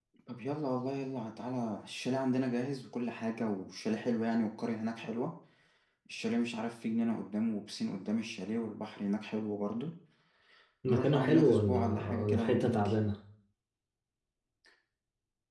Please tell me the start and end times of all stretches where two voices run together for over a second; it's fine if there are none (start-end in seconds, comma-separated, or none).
10.9-13.0